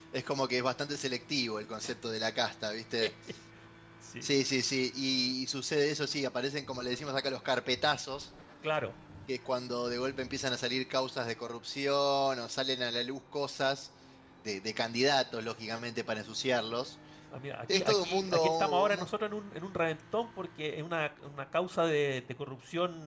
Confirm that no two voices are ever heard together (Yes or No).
No